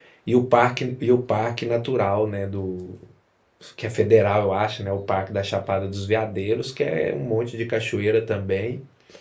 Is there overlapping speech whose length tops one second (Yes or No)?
No